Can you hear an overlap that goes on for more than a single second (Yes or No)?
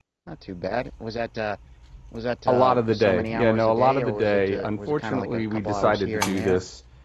Yes